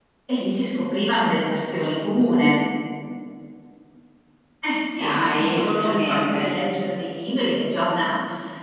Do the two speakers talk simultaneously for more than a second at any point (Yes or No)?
Yes